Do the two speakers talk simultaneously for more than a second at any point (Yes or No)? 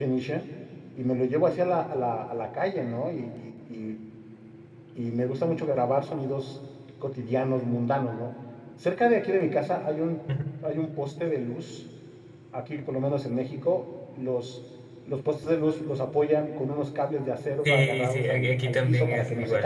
Yes